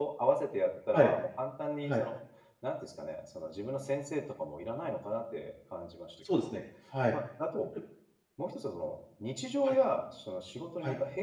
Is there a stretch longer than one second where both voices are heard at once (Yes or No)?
No